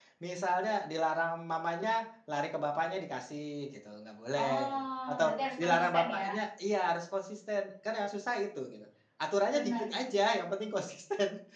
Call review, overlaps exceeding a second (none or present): present